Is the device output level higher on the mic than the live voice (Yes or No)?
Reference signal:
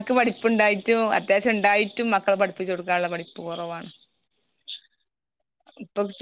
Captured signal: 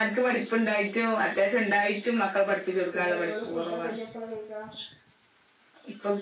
Yes